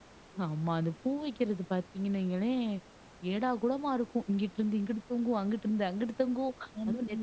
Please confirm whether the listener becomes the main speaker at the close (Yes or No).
No